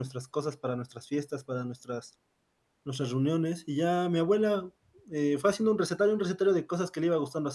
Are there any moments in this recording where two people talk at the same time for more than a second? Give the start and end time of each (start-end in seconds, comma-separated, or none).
none